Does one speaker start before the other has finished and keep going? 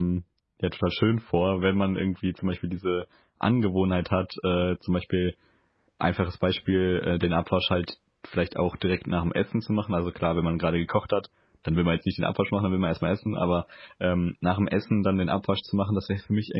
No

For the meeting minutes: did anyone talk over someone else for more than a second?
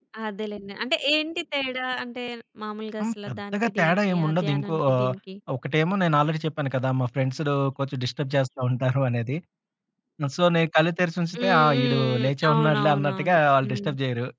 Yes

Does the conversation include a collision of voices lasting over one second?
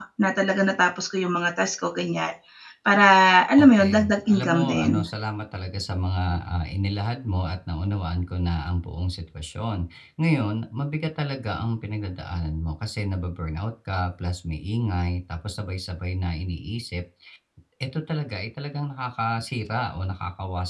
Yes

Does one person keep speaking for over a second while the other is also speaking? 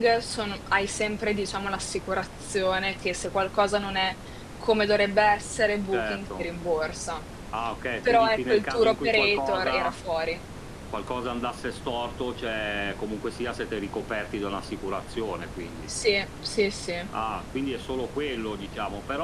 Yes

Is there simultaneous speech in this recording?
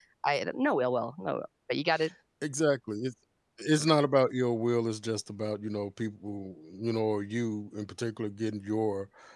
No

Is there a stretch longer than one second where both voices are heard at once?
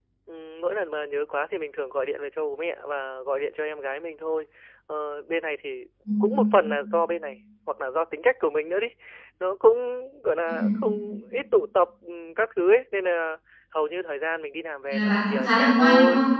Yes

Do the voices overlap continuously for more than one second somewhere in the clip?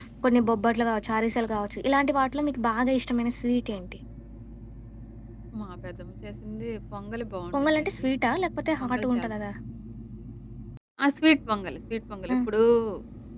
No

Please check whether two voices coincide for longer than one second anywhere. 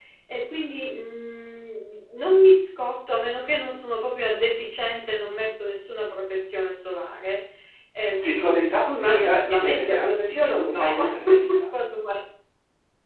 Yes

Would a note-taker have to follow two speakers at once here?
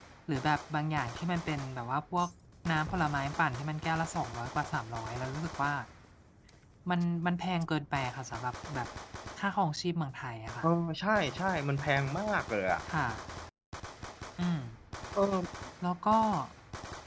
No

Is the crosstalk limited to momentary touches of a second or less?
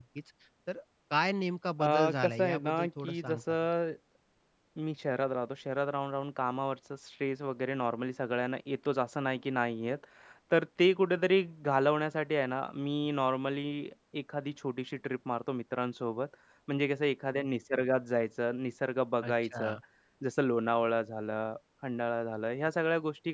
No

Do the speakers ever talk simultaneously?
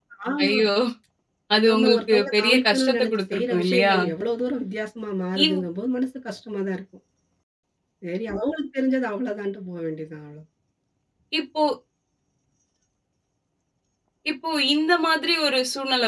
Yes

